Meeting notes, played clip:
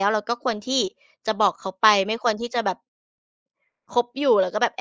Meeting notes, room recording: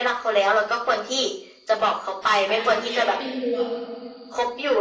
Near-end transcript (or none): อายุก็เยอะขึ้นด้วย